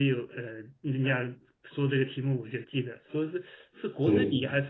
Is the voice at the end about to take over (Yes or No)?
No